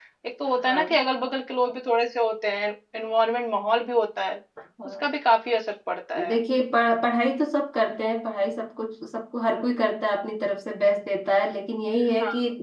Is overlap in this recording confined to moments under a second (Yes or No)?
Yes